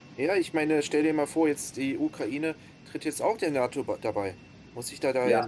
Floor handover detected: Yes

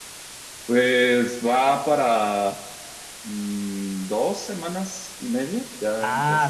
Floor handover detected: Yes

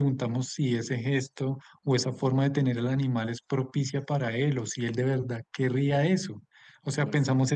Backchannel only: Yes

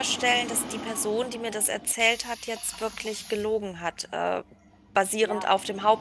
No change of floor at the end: Yes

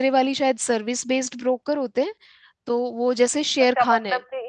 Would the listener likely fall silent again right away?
No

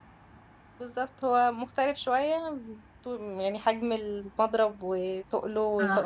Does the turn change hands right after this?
Yes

